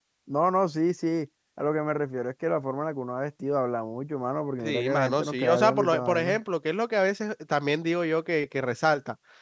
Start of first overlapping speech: 4.6 s

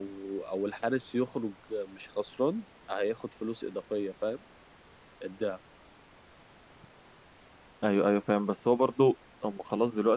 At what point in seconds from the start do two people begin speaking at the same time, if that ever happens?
none

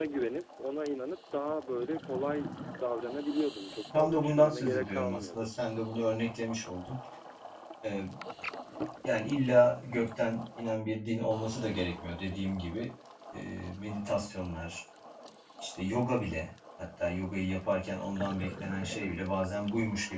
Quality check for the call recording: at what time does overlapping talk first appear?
3.9 s

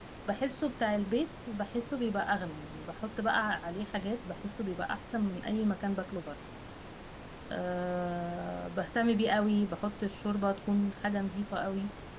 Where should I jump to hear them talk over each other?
none

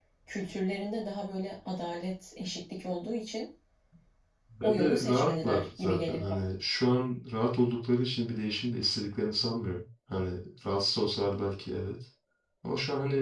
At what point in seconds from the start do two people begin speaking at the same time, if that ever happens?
4.6 s

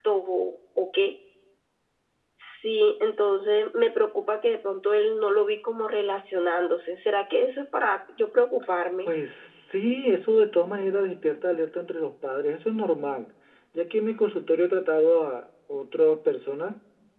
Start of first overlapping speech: none

